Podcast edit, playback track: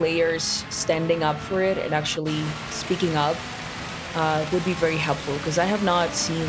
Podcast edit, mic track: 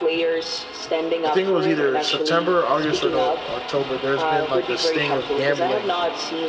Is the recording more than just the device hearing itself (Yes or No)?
Yes